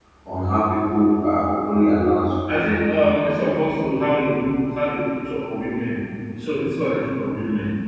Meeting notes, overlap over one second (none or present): none